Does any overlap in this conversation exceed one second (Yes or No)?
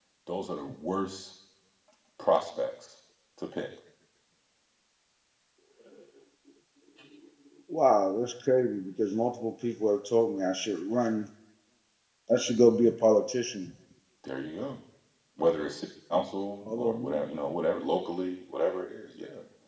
No